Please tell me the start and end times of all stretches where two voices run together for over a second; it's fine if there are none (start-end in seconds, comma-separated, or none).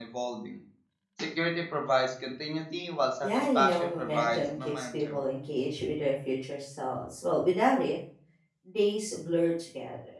3.2-5.2